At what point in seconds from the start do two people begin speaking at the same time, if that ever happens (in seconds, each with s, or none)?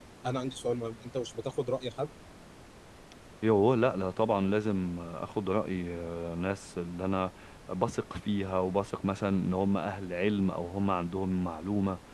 none